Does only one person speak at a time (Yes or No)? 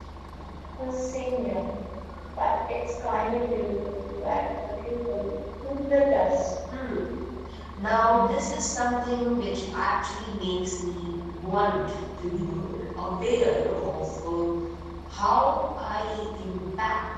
Yes